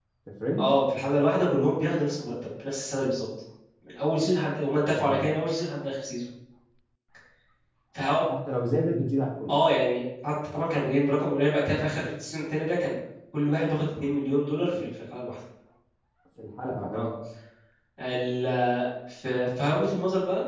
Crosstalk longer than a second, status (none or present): none